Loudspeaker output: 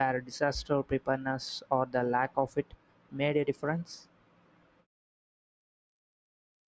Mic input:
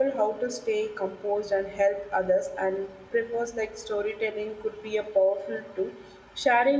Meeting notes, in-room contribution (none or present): present